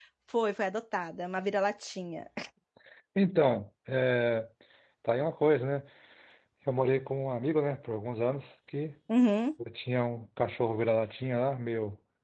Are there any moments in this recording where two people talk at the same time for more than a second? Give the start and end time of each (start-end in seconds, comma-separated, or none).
none